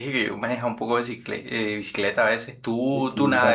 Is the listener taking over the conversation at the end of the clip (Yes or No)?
Yes